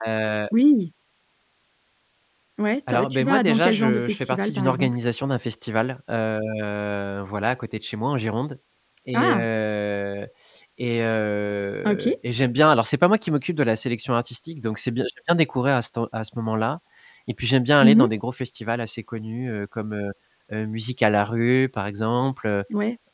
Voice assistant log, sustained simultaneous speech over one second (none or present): present